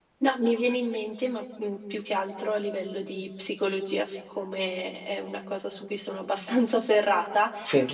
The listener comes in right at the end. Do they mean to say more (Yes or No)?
No